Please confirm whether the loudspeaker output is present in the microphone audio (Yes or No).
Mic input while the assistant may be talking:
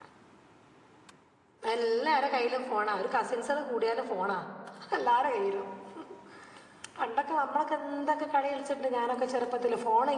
No